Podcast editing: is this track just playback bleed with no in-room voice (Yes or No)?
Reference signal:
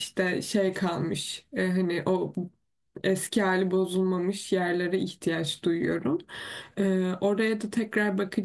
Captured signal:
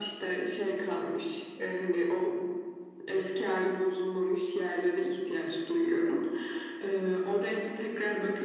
Yes